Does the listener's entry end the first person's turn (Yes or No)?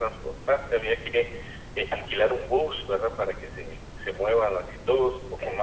No